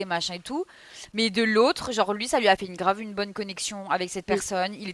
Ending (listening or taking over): listening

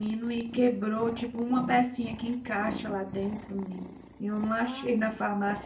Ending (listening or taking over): listening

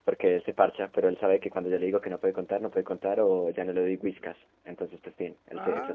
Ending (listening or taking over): taking over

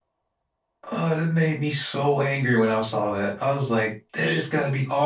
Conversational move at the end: listening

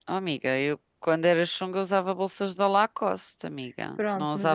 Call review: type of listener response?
taking over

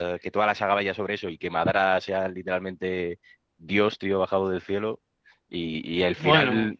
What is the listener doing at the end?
listening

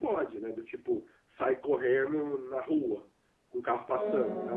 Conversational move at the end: listening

